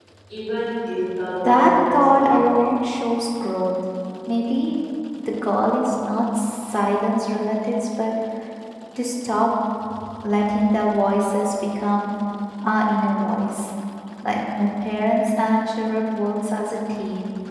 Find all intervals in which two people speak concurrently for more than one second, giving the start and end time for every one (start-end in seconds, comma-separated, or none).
1.4-2.7